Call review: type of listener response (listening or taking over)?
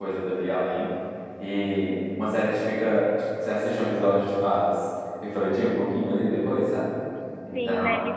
taking over